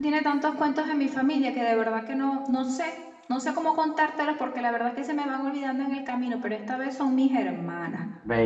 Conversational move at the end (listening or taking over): taking over